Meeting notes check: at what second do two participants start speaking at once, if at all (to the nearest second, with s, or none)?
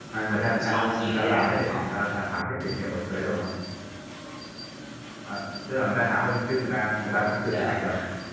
1 s